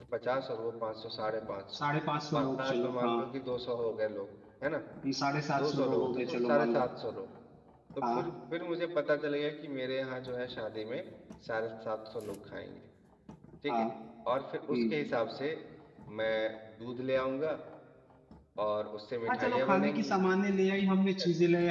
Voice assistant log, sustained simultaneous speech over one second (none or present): present